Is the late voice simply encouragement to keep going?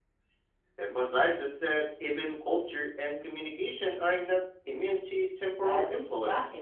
No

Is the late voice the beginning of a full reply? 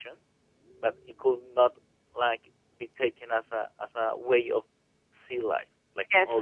Yes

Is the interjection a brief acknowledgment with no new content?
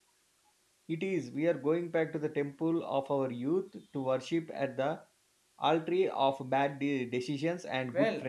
No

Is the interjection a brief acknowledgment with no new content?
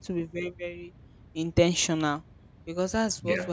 Yes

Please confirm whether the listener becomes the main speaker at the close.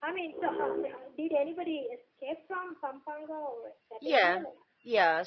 Yes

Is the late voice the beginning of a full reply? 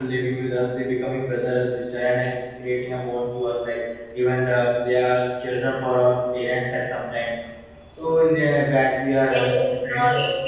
Yes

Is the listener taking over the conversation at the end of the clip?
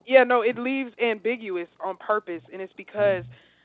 No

